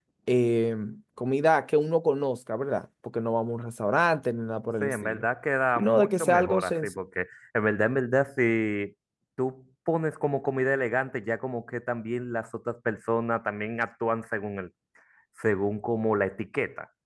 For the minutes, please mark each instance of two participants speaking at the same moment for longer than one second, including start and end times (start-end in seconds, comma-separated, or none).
5.8-7.0